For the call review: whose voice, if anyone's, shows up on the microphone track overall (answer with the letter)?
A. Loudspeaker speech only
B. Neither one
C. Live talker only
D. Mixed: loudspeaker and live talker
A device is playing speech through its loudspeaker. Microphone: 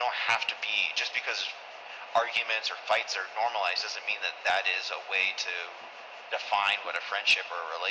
A